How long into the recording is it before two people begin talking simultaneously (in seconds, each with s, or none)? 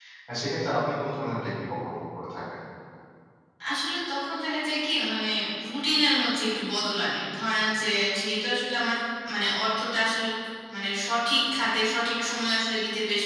none